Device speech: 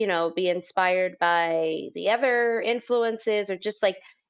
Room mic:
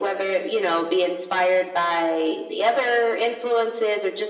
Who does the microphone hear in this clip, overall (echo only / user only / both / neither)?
echo only